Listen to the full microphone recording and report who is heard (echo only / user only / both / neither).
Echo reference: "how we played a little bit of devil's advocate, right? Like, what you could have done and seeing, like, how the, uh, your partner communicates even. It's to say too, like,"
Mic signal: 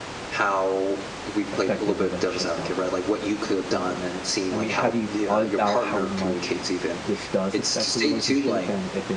both